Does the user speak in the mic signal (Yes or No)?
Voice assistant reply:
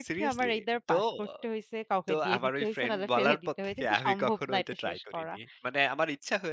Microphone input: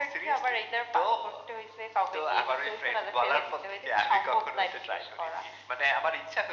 No